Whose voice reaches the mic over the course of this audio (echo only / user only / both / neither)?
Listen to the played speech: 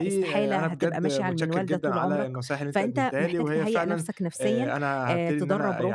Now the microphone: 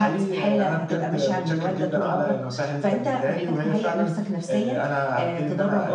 echo only